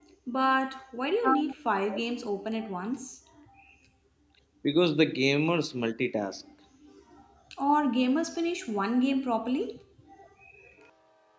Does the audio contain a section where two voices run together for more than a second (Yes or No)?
No